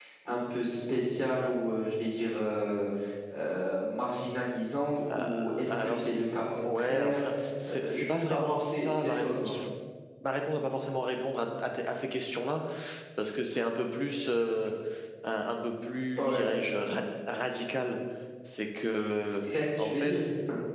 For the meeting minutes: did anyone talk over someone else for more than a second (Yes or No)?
Yes